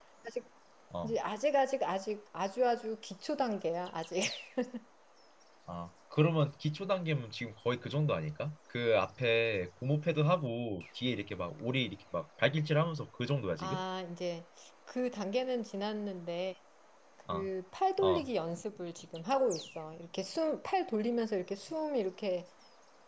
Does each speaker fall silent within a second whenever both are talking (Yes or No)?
Yes